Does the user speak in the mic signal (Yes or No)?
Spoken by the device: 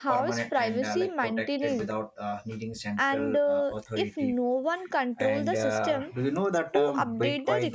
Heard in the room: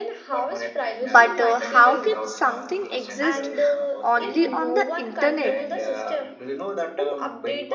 Yes